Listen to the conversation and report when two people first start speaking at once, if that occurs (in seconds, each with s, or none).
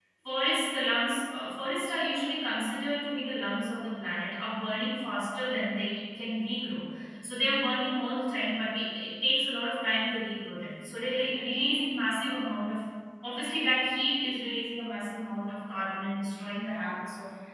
none